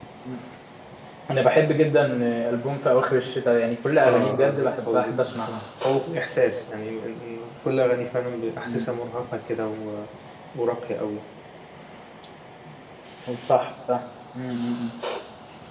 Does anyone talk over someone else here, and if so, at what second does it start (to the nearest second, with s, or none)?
4 s